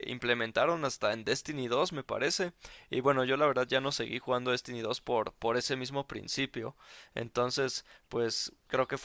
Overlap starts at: none

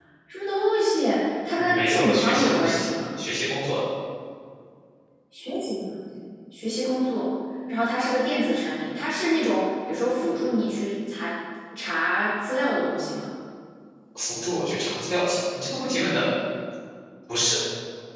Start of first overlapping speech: 2 s

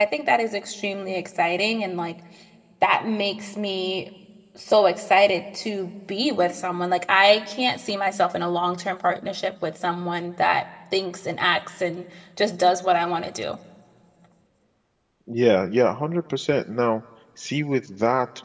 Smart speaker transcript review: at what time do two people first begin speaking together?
none

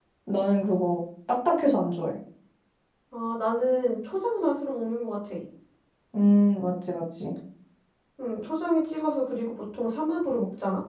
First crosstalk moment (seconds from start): none

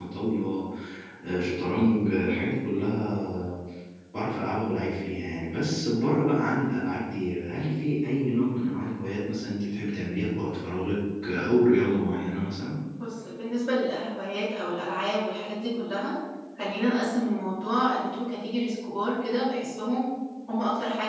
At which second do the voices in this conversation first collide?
none

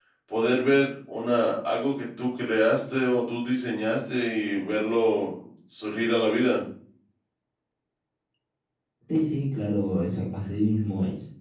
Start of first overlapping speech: none

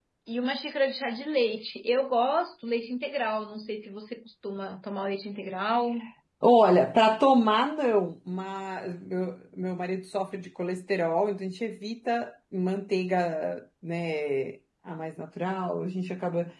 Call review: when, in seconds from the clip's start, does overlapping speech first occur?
none

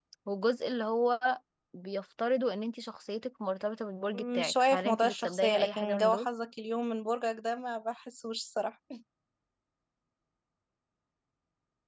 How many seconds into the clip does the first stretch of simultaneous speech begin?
4 s

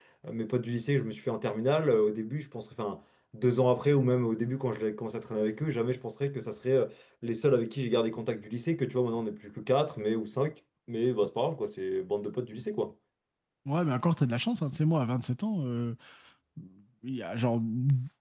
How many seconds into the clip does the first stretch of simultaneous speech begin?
none

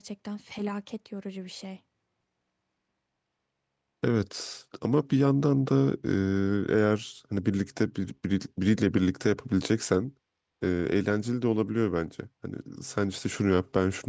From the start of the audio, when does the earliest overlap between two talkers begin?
none

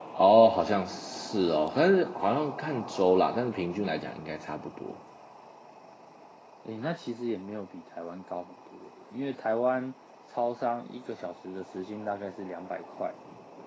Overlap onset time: none

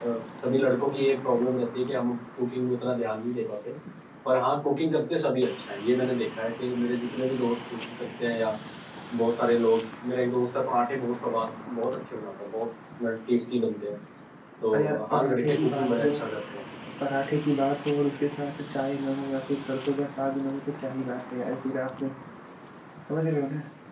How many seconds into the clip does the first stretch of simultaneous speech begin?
15 s

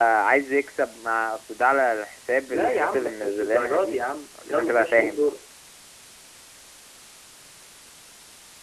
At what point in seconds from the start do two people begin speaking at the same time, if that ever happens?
2 s

